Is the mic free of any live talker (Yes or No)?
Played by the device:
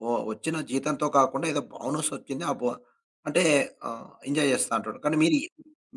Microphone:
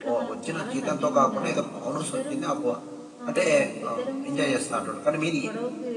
No